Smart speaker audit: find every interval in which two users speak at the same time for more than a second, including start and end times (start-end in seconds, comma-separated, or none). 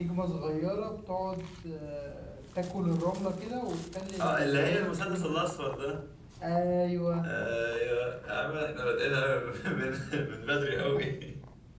4.2-5.4